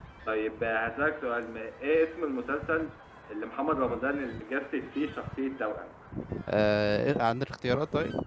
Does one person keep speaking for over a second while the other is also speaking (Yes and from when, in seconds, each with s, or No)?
No